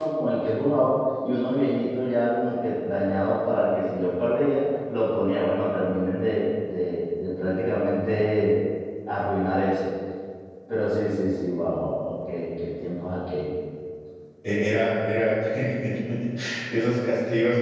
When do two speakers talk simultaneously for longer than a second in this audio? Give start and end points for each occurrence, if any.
none

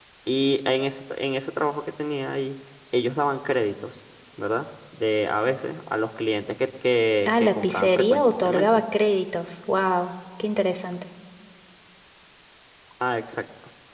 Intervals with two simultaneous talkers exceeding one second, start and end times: 7.2-8.7

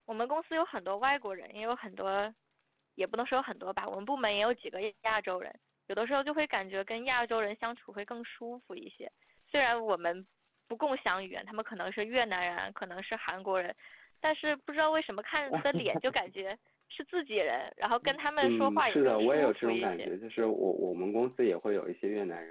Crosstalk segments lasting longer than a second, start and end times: 18.4-20.1

